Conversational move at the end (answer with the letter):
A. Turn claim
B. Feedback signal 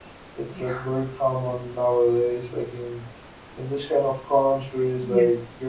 B